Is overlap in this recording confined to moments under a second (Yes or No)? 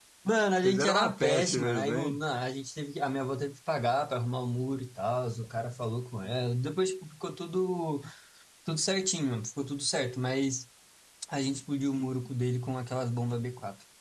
No